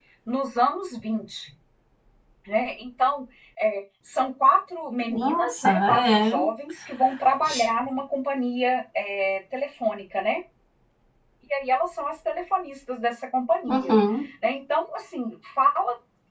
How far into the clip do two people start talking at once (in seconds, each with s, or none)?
5.1 s